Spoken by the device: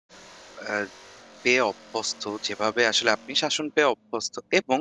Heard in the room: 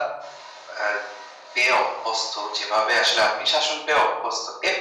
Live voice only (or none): none